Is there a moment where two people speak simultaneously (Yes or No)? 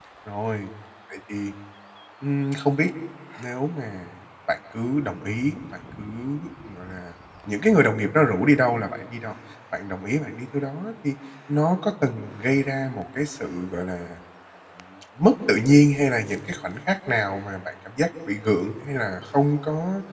No